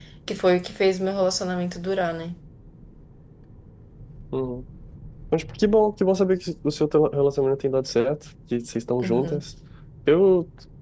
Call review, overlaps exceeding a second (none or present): none